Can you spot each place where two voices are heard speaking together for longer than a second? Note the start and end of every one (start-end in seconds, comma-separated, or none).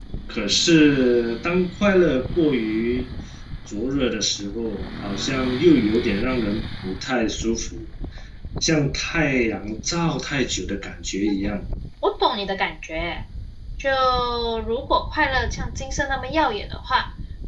none